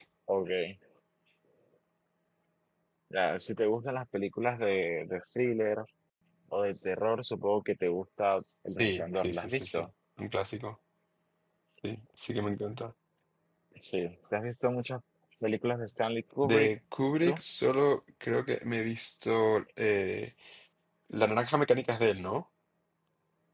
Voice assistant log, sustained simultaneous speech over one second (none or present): present